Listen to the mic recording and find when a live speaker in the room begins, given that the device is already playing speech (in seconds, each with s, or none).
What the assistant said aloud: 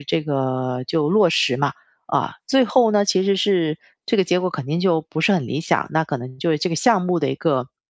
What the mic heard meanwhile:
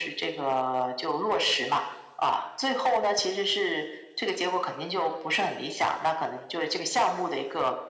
none